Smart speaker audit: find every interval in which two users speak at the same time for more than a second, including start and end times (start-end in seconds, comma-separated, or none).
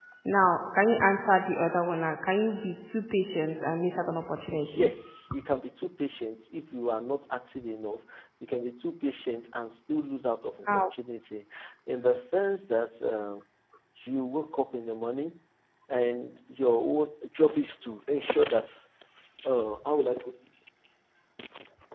none